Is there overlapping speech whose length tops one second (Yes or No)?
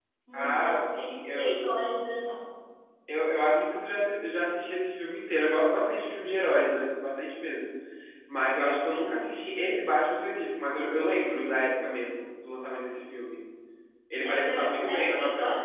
Yes